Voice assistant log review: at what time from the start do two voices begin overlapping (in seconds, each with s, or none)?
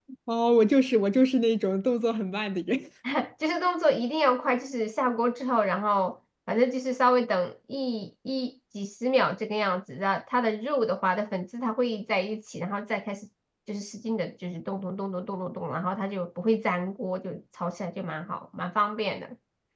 none